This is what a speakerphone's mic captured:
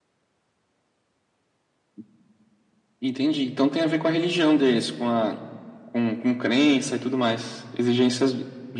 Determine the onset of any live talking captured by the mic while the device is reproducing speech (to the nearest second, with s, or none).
none